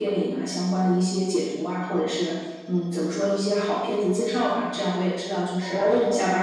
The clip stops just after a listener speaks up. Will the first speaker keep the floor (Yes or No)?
Yes